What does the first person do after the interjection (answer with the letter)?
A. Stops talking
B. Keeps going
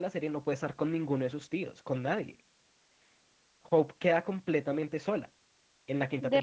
A